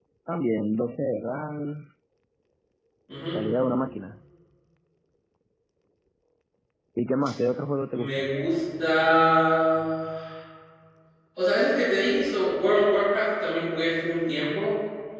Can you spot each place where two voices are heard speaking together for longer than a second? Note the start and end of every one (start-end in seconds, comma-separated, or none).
none